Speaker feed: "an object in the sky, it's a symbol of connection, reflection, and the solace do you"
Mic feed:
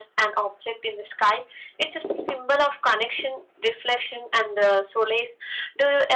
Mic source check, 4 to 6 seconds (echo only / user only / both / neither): echo only